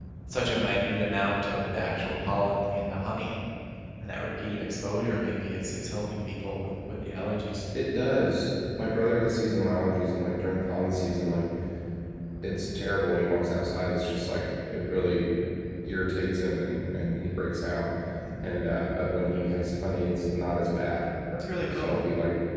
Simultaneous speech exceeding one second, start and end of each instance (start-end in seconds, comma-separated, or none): none